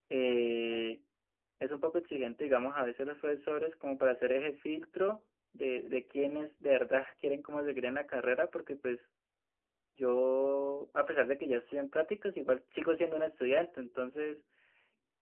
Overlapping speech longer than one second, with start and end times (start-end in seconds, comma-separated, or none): none